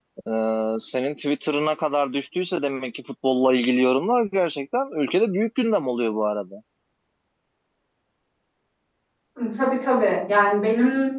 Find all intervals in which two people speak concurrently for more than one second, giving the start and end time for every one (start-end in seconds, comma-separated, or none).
none